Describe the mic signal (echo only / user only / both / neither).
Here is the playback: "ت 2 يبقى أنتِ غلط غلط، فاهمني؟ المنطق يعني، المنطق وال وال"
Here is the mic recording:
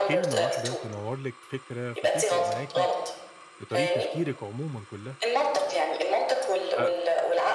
both